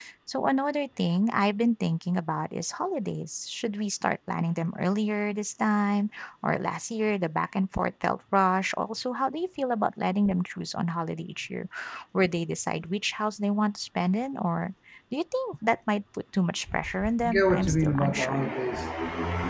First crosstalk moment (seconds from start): 17.2 s

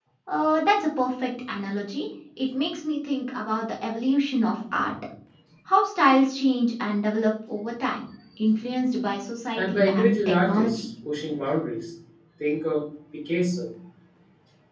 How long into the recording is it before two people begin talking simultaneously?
9.6 s

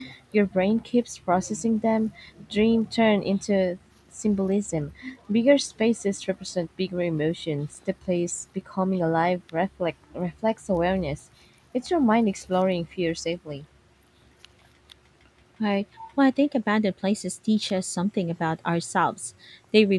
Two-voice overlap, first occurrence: none

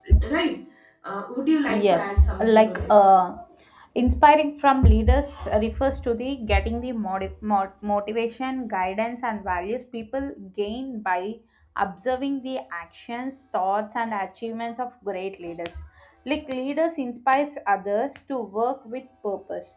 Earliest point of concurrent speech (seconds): 1.7 s

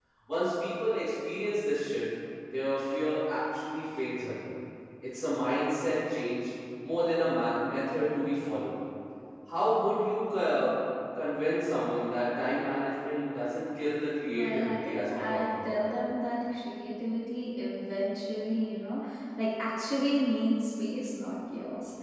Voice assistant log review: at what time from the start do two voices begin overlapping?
14.3 s

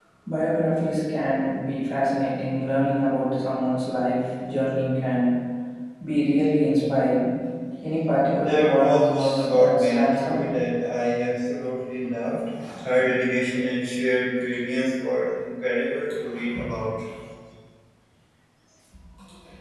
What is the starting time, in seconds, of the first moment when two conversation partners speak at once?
8.4 s

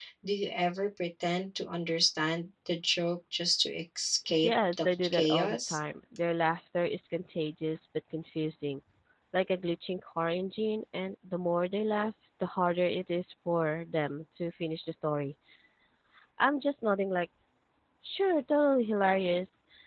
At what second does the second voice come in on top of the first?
4.3 s

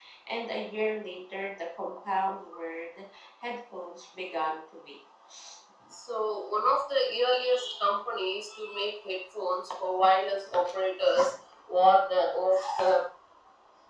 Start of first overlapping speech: none

